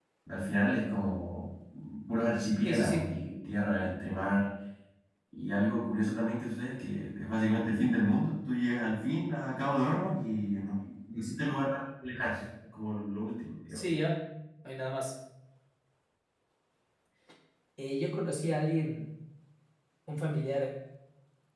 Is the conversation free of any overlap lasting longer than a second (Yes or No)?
Yes